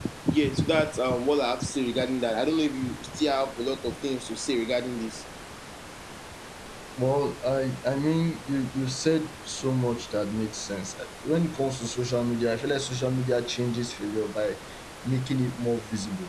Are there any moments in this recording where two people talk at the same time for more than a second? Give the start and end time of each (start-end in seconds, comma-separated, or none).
none